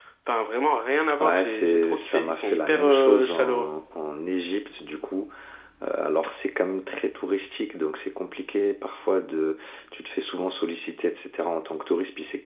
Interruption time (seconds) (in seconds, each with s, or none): 1.2 s